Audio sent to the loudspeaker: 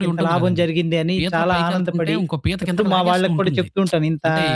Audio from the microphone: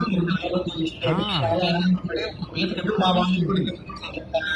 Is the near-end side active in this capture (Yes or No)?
Yes